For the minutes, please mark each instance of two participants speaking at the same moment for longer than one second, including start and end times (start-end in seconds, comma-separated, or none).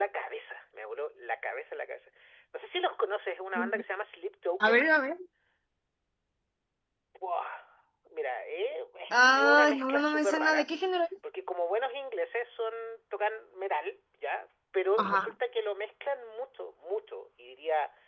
9.1-10.7